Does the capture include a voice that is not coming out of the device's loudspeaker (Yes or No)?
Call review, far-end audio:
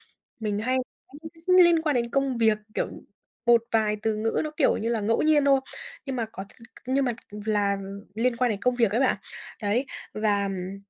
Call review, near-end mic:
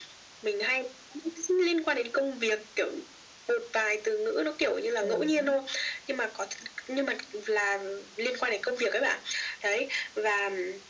Yes